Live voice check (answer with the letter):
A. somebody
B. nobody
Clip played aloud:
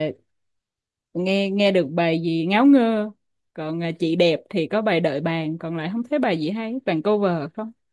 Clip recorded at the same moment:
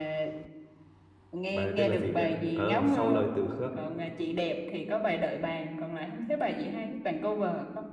A